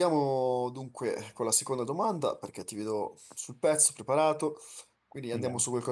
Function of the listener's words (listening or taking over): listening